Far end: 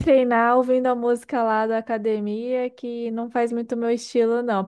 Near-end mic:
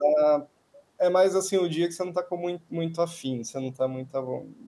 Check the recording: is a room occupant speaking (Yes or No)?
Yes